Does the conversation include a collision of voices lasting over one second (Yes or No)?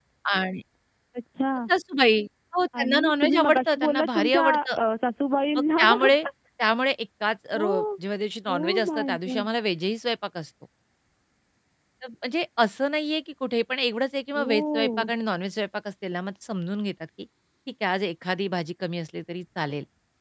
Yes